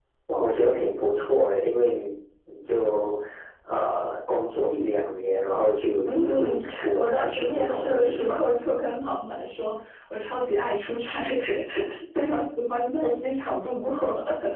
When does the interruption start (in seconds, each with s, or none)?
6.0 s